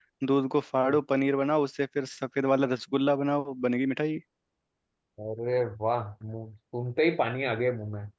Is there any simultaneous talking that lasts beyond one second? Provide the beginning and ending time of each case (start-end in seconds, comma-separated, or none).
none